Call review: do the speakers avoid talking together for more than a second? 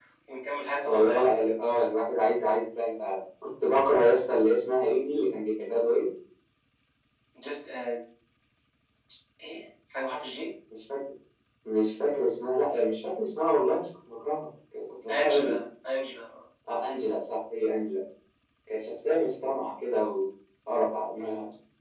Yes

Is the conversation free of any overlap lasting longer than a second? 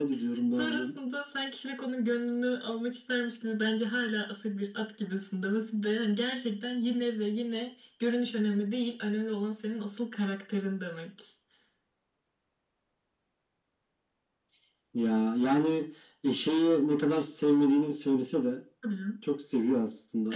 Yes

